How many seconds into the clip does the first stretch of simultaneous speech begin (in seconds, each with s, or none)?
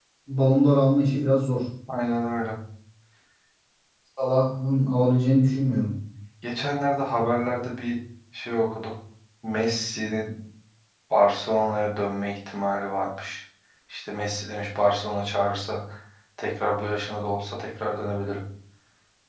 none